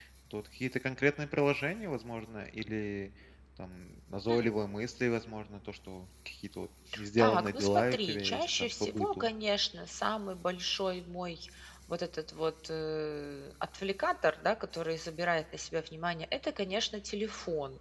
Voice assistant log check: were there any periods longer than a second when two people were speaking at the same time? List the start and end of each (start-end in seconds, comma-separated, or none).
7.2-9.3